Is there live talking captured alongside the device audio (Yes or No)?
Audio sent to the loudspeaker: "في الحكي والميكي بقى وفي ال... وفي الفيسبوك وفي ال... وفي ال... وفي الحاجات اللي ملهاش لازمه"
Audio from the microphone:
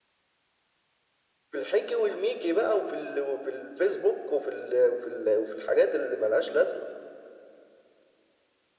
No